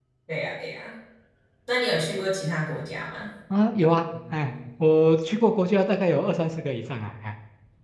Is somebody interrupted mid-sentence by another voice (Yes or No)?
No